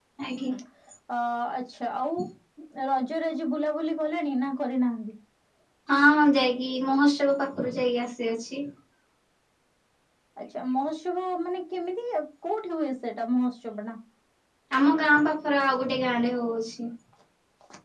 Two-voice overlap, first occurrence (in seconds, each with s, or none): none